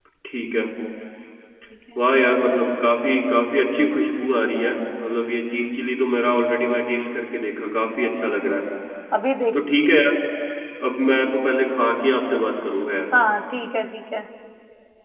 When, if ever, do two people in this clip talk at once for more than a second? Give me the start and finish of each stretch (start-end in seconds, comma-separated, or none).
none